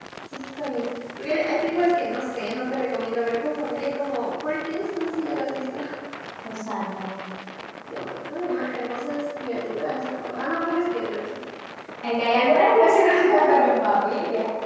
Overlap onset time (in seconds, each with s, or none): none